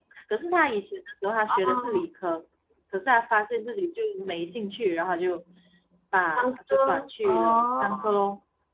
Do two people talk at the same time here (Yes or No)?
Yes